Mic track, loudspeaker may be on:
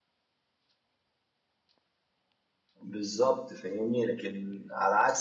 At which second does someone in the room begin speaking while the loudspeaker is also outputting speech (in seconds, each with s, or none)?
2.9 s